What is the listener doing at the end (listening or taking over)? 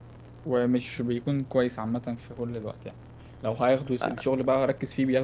listening